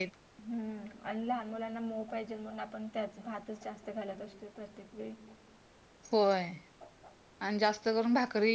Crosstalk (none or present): none